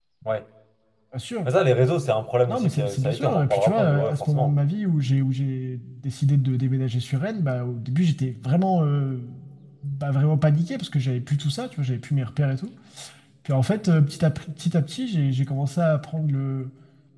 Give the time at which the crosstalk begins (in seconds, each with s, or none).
2.5 s